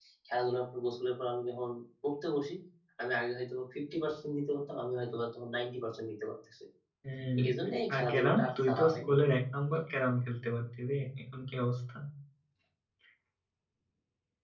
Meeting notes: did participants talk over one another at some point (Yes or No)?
Yes